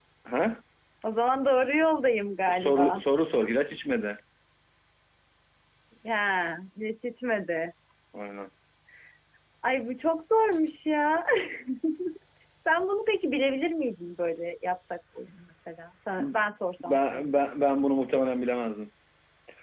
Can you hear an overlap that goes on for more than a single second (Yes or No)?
No